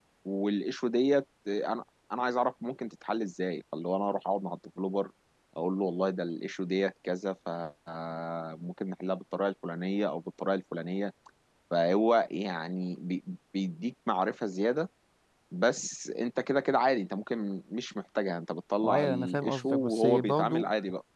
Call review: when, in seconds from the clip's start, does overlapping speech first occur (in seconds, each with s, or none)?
18.8 s